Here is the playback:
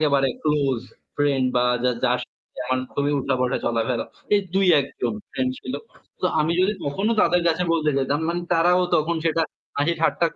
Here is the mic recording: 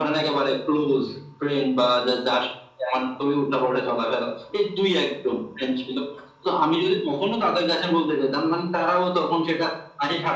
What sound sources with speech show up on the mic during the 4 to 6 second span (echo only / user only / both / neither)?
echo only